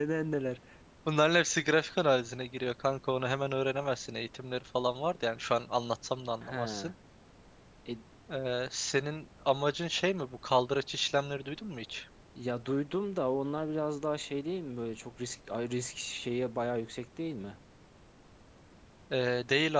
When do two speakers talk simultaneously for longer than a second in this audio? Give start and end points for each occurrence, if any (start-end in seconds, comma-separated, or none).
none